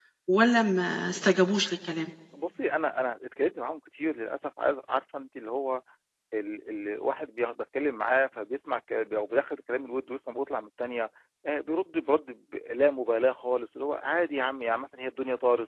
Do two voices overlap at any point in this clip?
No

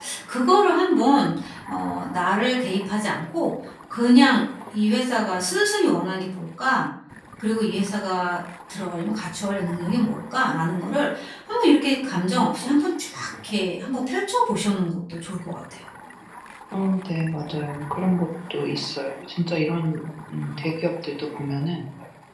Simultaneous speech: No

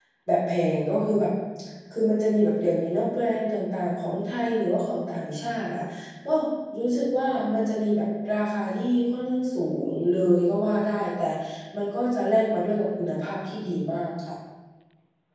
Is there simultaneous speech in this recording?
No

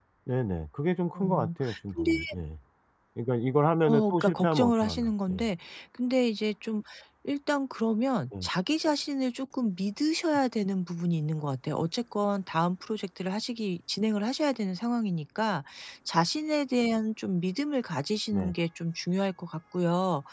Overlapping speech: Yes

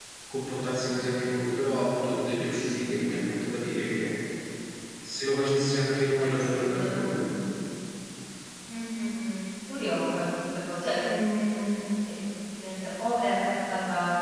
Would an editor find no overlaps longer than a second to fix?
No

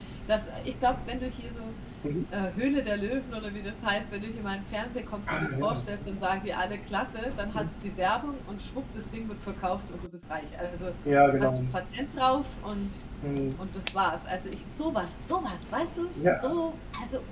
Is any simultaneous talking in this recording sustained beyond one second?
No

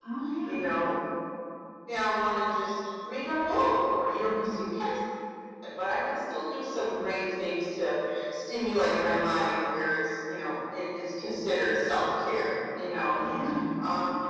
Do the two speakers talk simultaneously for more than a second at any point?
No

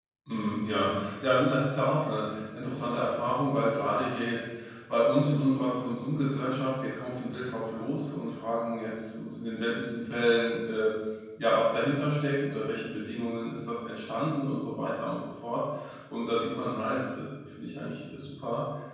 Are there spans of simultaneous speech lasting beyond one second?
No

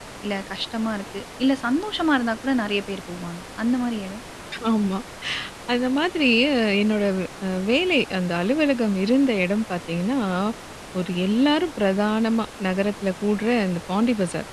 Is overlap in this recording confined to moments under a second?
Yes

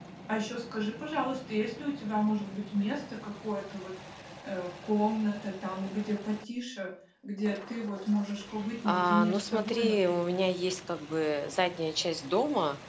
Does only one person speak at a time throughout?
No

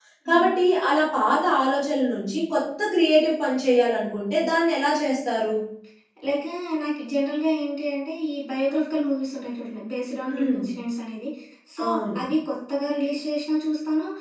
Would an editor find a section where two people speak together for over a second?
No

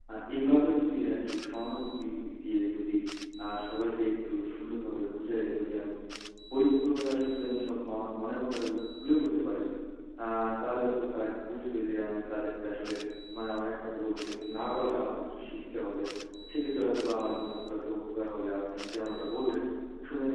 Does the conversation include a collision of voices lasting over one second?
No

